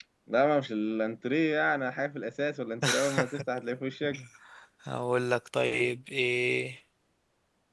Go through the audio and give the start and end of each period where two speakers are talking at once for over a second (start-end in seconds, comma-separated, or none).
none